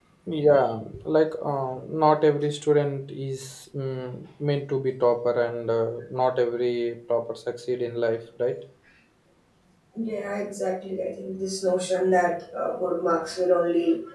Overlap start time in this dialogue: none

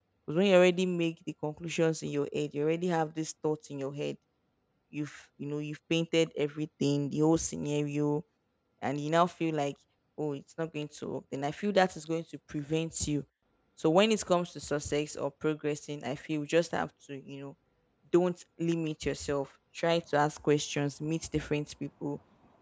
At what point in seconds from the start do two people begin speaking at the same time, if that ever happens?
none

